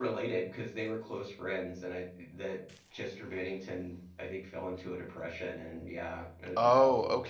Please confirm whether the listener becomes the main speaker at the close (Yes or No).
Yes